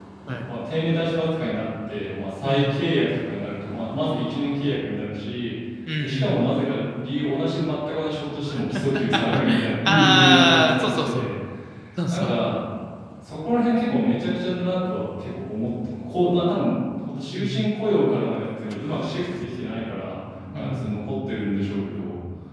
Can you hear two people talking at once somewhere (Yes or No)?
Yes